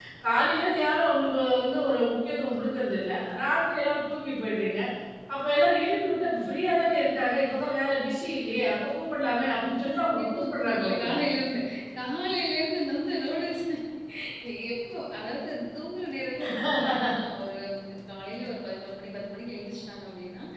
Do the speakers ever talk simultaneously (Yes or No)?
Yes